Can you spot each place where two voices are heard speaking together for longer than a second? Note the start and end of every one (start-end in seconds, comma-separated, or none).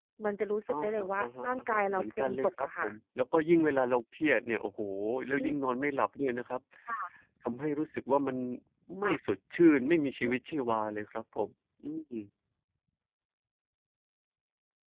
0.7-2.9